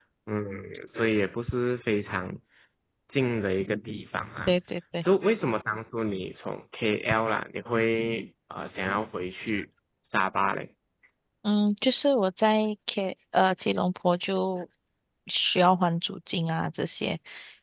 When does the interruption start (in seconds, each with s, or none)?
none